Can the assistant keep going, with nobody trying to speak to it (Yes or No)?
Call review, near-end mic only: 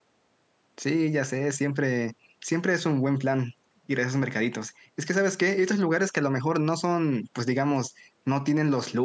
No